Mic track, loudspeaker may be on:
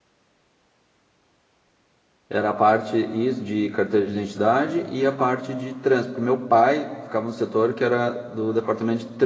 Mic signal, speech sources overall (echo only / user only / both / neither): user only